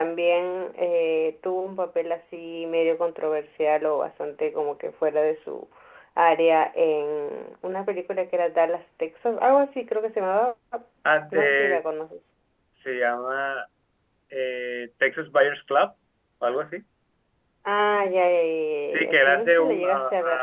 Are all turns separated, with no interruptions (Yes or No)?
No